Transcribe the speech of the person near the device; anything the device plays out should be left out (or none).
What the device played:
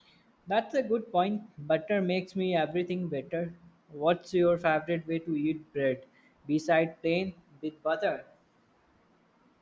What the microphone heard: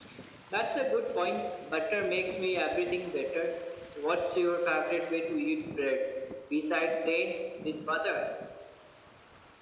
none